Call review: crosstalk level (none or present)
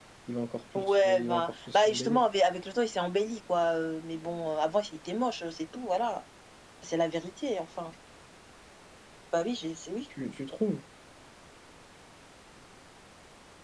present